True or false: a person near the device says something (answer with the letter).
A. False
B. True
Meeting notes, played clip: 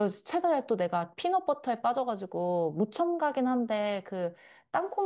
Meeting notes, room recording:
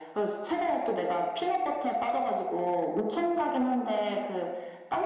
A